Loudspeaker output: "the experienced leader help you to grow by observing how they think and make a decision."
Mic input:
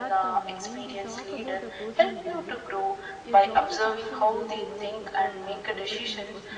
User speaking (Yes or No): Yes